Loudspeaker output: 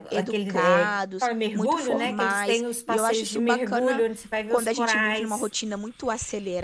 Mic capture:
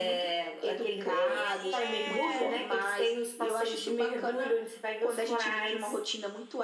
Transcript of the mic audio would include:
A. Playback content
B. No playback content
A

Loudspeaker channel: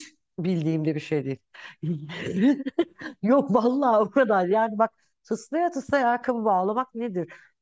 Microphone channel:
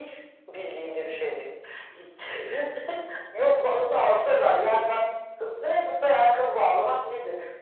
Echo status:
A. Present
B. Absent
A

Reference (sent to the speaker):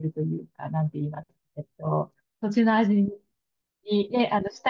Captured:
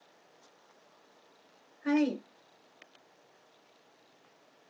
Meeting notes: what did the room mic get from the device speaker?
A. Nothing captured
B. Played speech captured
A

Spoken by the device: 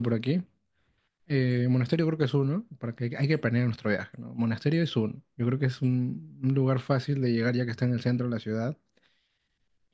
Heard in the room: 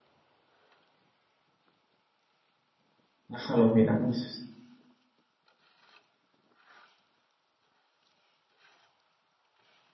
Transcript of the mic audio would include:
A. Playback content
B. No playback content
B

